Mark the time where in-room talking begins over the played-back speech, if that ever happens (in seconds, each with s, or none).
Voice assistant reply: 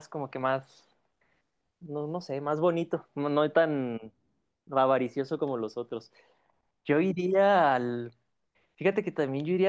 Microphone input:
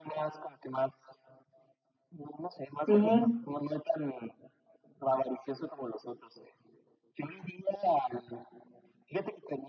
2.9 s